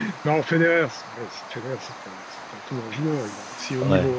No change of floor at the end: Yes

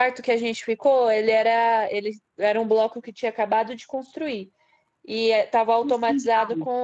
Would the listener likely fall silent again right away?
Yes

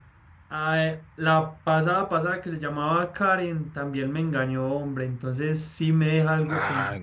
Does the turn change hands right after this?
No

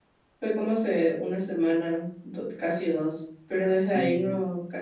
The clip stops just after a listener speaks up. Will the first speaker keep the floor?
Yes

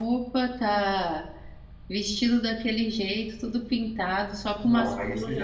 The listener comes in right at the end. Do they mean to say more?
Yes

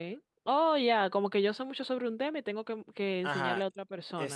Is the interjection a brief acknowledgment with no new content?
No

